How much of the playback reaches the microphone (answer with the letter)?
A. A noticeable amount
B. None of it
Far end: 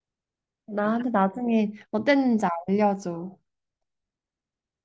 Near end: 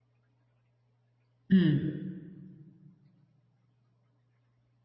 B